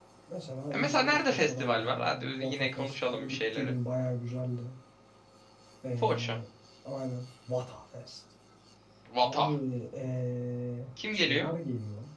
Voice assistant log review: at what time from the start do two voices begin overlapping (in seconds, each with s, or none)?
0.7 s